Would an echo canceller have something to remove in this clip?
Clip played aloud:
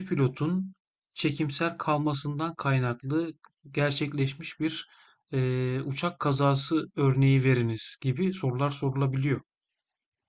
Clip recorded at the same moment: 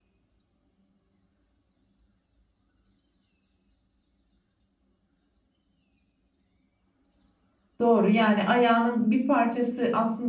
No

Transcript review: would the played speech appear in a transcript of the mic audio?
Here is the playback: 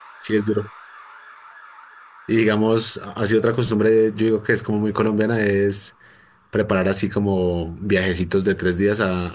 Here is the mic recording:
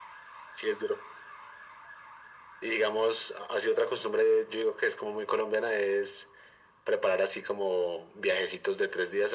Yes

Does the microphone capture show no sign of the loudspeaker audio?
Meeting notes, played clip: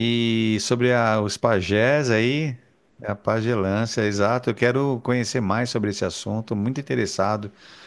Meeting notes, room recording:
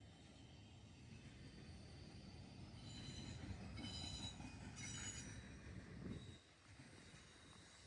Yes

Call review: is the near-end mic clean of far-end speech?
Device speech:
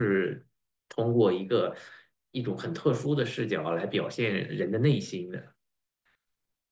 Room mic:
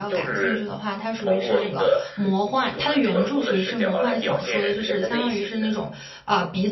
No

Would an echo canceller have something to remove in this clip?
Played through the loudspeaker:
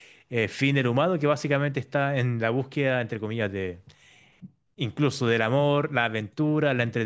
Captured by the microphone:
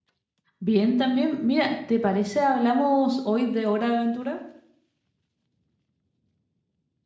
No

